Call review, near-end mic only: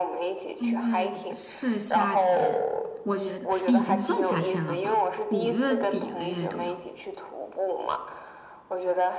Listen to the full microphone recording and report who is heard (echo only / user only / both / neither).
both